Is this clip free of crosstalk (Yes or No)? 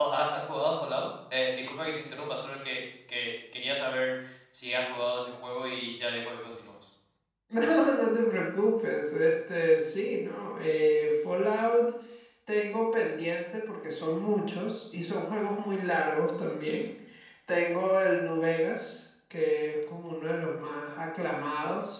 Yes